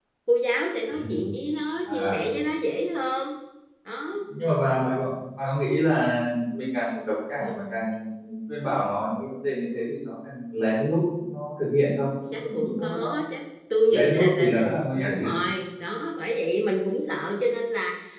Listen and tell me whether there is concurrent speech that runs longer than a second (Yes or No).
Yes